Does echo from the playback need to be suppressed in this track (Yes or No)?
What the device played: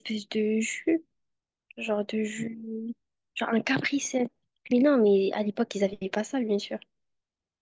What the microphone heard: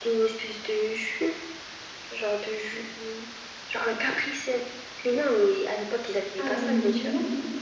Yes